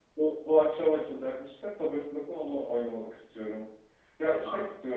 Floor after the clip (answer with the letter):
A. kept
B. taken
A